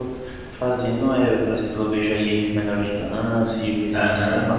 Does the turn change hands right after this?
Yes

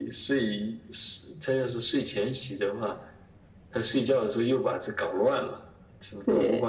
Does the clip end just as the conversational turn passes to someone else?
Yes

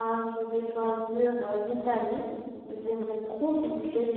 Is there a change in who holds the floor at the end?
No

